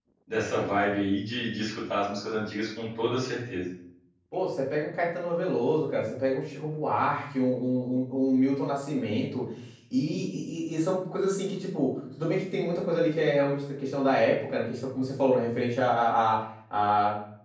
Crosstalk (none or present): none